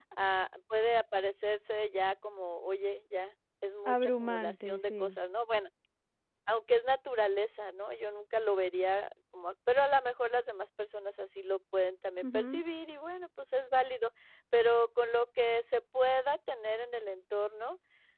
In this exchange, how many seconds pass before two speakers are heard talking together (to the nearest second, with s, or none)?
4 s